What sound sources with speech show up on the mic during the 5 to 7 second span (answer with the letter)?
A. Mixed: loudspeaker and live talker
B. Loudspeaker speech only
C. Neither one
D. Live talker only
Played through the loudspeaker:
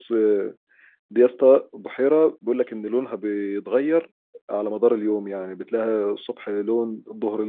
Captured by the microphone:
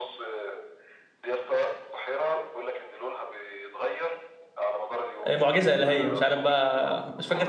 A